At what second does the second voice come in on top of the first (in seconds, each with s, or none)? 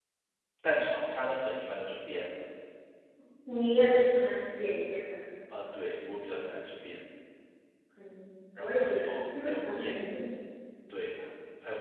8.6 s